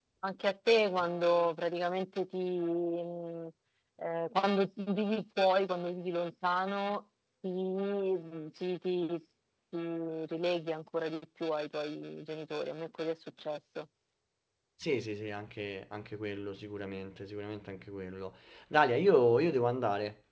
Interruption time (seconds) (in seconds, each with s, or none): none